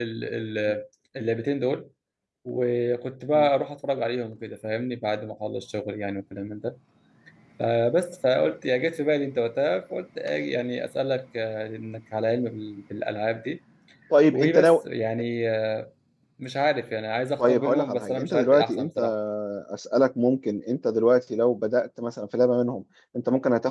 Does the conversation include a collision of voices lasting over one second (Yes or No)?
Yes